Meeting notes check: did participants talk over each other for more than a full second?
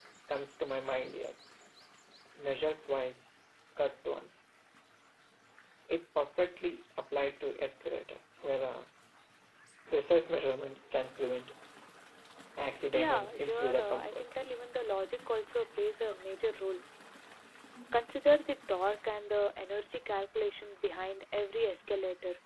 Yes, from 12.9 s

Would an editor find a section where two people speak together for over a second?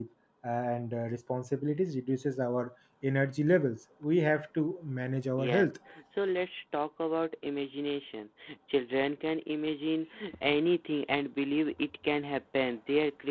No

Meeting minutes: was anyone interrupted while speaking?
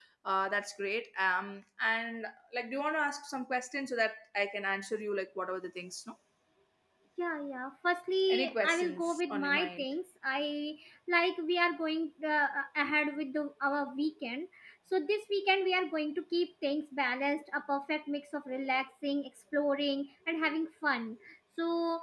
Yes, from 8.3 s

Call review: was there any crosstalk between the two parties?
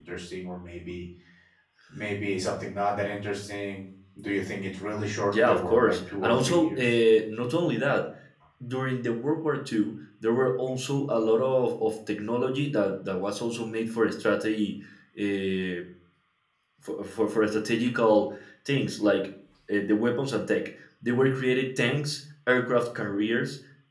Yes, from 5.2 s

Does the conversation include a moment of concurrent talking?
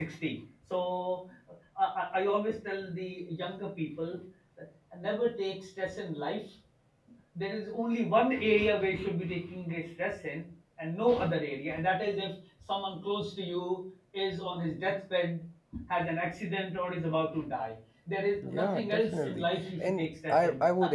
Yes, from 18.4 s

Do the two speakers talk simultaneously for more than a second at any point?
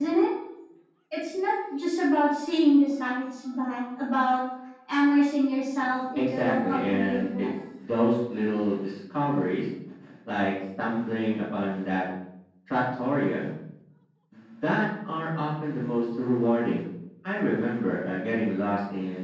Yes, from 6.2 s

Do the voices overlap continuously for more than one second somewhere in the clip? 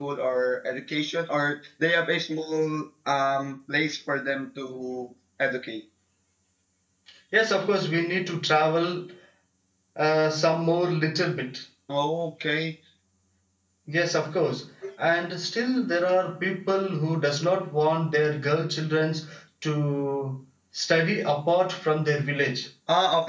No

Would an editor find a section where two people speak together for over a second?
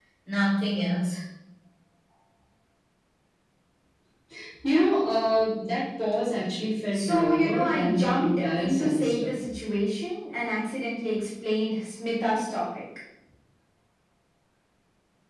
Yes, from 6.9 s

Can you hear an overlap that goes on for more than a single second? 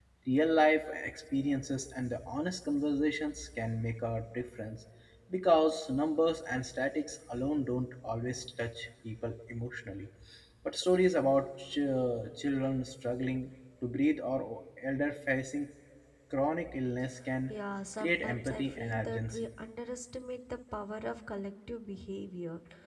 Yes, from 18.0 s

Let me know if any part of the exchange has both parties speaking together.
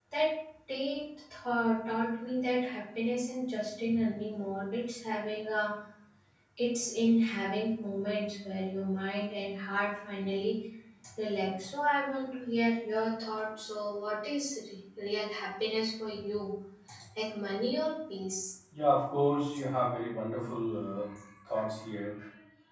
No

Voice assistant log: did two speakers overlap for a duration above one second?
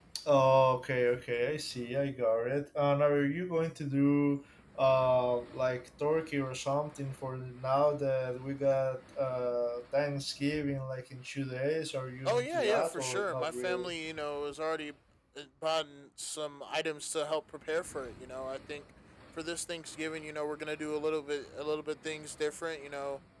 Yes, from 12.2 s

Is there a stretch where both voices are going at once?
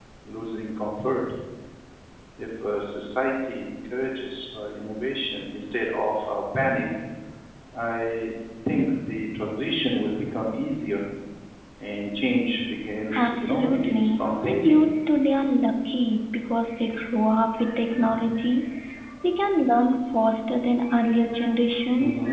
Yes, from 13.2 s

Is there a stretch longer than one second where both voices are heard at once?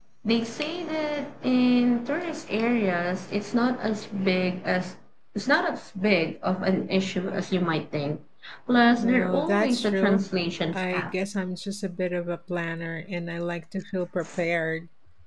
Yes, from 9.0 s

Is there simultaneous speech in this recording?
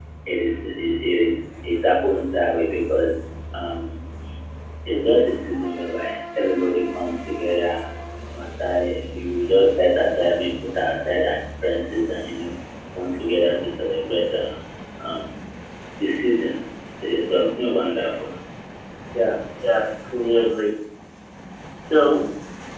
No

